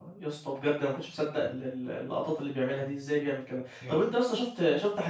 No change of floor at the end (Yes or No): Yes